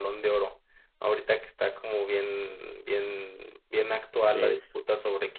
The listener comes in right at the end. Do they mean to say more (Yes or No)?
No